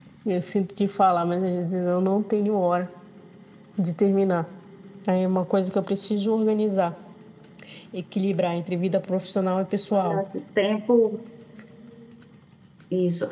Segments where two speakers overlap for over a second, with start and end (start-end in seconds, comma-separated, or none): none